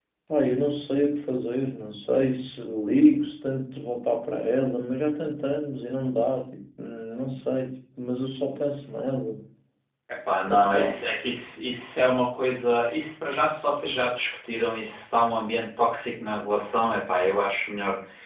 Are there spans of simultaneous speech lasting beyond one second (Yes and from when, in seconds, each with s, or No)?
No